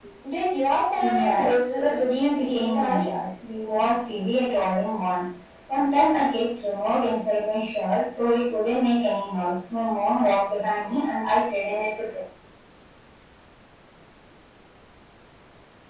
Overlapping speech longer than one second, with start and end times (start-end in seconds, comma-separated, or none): 1.0-3.0